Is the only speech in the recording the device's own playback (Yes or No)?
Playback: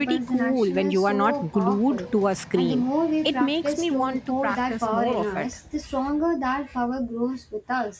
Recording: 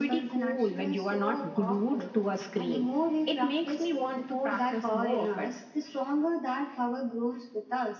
Yes